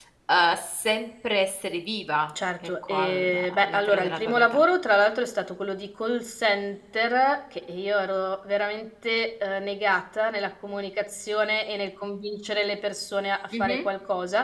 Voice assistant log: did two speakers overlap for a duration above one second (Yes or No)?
Yes